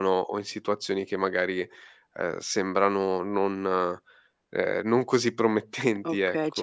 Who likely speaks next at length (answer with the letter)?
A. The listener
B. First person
A